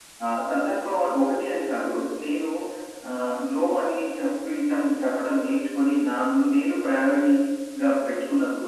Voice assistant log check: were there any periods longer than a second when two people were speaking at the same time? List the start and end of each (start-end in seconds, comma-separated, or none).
none